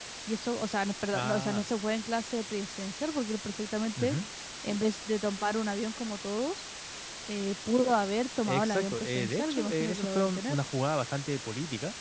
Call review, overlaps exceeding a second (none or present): present